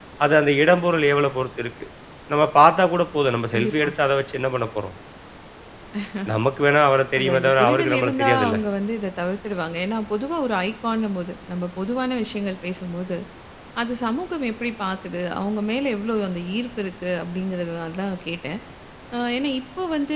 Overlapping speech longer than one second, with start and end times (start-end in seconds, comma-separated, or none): 7.2-8.6